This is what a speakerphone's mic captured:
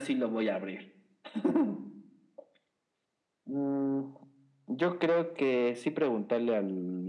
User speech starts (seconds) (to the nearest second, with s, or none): none